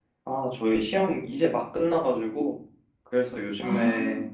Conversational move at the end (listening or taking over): listening